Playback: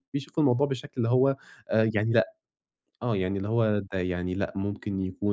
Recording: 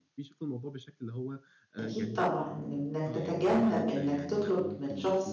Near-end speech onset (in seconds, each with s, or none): 1.8 s